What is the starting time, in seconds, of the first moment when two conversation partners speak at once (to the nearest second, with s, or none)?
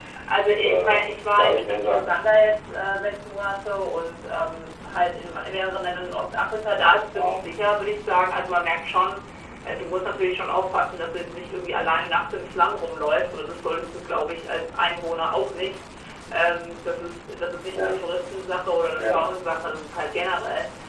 1 s